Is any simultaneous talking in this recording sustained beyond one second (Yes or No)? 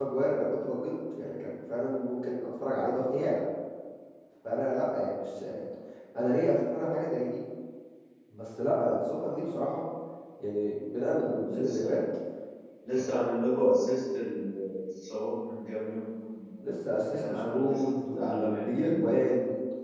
Yes